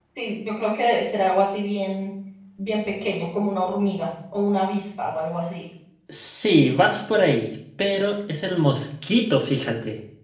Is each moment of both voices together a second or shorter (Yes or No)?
Yes